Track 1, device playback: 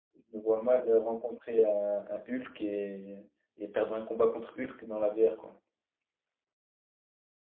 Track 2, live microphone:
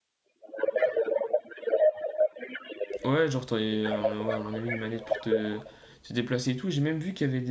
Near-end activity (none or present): present